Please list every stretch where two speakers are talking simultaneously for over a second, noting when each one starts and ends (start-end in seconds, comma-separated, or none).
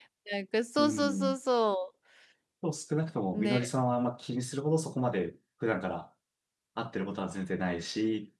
none